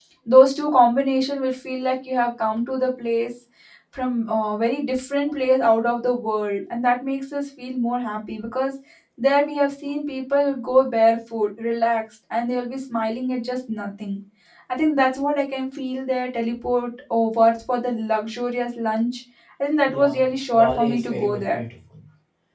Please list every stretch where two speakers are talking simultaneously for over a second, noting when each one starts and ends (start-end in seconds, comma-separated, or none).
19.9-21.6